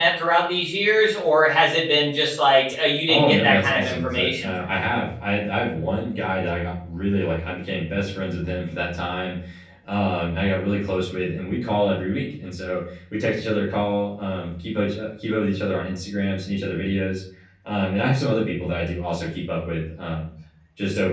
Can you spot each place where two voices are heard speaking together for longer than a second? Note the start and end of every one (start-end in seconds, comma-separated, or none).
3.1-5.0